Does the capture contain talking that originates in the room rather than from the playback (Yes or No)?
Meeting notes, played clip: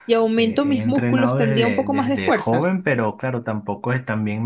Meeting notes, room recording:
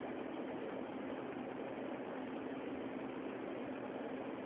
No